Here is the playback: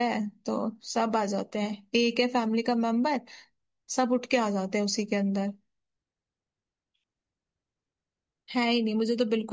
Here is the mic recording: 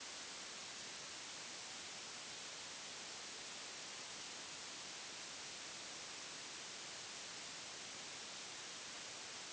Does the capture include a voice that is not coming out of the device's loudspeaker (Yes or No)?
No